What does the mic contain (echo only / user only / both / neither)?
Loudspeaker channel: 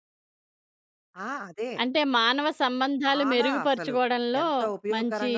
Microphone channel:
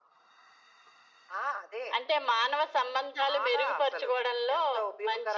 echo only